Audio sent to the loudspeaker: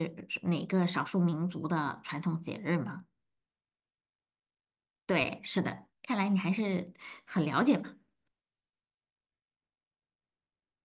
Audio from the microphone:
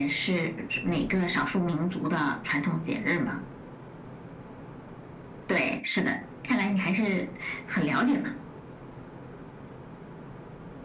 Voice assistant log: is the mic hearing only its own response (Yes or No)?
Yes